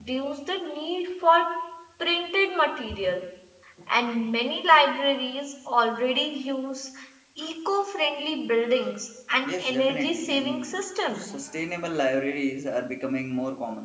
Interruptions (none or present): present